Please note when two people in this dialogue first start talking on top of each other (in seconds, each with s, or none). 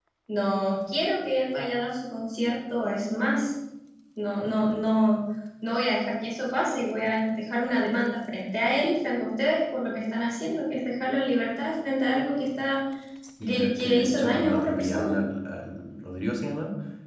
13.4 s